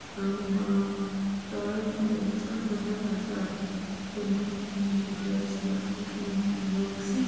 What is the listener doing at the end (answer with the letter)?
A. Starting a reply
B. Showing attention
A